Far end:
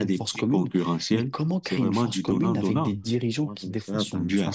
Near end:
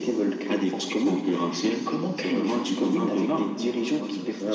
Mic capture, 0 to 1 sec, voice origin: echo only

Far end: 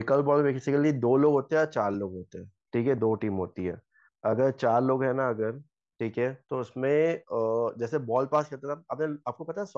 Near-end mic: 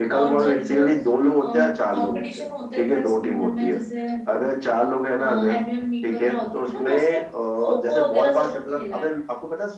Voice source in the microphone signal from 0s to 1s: both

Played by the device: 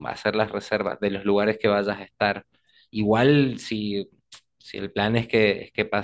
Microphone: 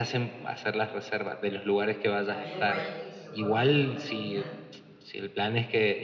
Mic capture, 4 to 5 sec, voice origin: both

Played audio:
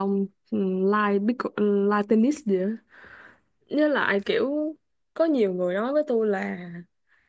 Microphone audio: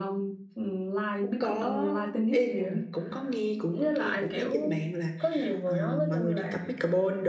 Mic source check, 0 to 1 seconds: echo only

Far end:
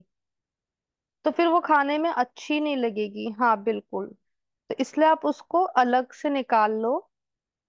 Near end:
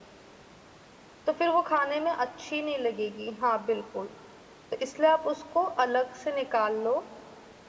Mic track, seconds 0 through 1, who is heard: neither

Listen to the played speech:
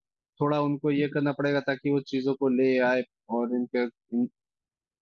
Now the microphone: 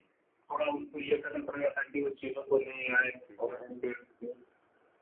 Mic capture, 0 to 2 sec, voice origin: echo only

